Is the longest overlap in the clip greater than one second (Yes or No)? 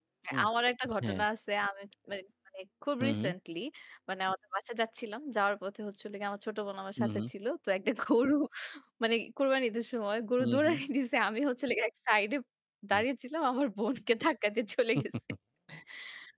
No